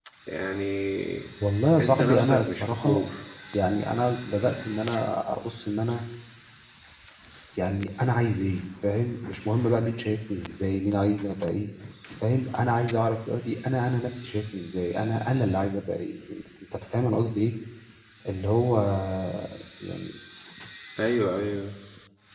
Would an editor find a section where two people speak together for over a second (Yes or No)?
Yes